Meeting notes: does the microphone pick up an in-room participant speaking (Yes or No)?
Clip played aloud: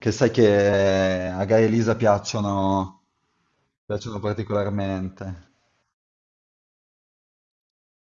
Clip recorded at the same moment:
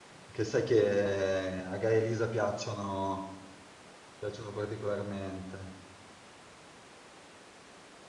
No